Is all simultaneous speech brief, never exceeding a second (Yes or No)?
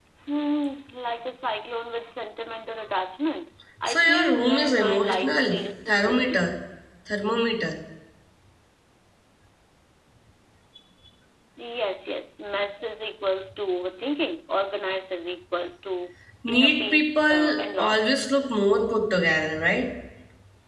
No